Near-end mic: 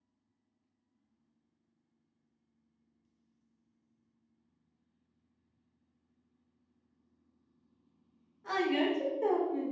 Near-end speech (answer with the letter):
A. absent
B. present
B